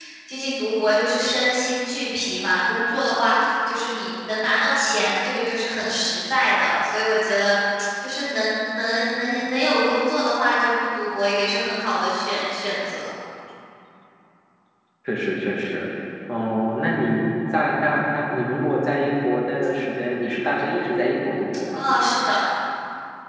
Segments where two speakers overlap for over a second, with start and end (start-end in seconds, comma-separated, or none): none